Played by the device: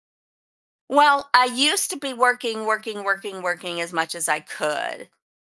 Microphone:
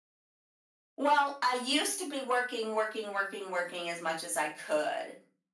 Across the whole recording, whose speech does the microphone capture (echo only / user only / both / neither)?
echo only